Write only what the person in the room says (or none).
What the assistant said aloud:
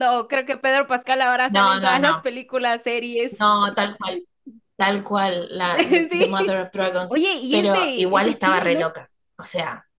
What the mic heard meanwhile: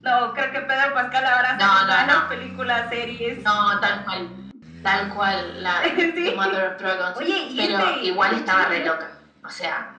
none